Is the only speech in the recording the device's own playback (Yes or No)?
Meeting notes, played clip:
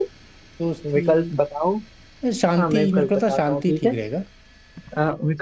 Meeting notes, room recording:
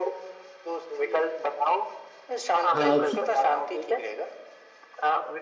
No